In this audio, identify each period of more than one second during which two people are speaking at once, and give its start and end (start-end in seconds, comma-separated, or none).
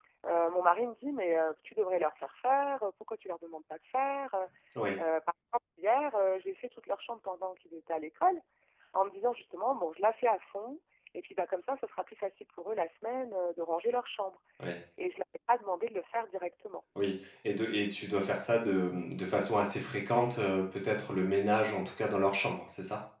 none